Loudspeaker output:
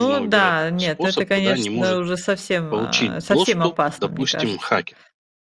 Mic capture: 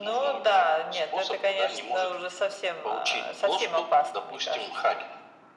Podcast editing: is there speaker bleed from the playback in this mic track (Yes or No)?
Yes